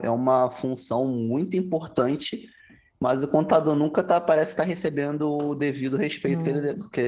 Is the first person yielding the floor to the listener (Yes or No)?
No